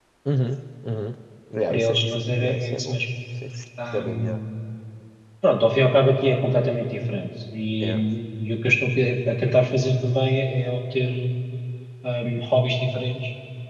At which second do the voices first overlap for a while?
2 s

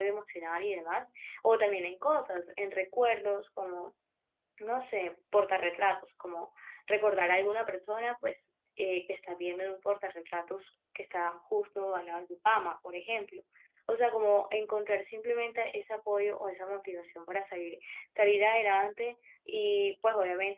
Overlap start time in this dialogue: none

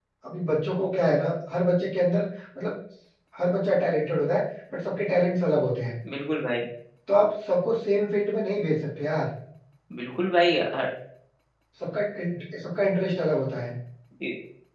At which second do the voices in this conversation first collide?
none

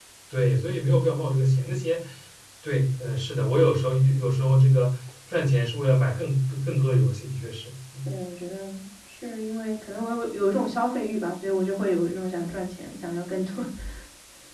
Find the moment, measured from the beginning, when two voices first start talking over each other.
none

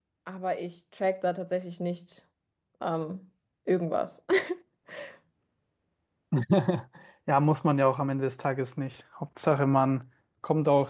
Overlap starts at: none

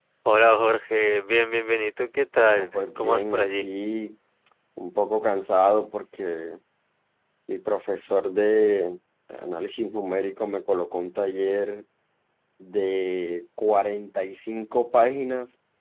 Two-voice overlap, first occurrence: 2 s

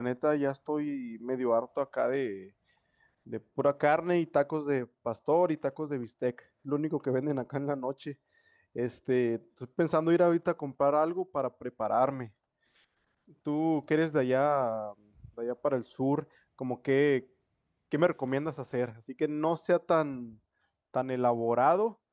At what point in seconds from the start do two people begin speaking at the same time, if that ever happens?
none

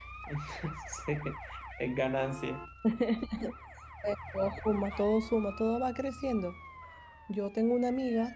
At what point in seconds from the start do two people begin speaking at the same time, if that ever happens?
none

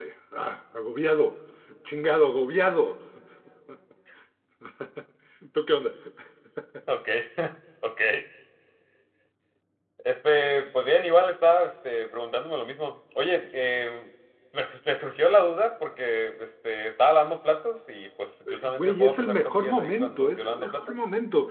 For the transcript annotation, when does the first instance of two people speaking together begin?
18 s

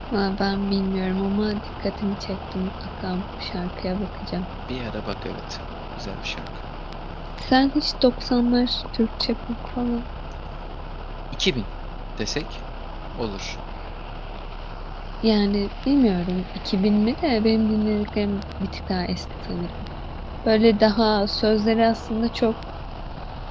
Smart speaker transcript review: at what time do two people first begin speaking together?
none

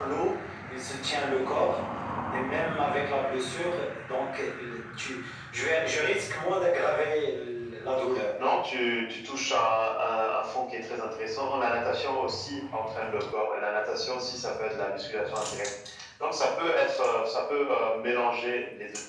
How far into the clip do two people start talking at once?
none

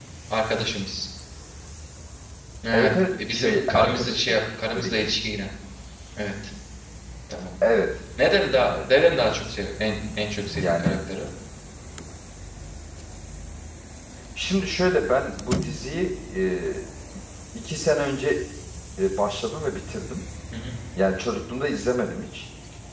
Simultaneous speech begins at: 3 s

